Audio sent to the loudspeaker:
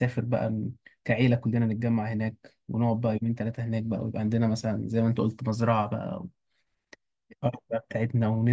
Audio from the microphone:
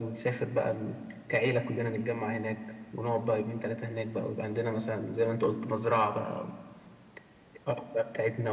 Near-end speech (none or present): present